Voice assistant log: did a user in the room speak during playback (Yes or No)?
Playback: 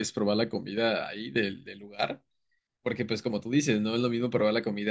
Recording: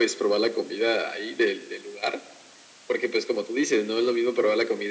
No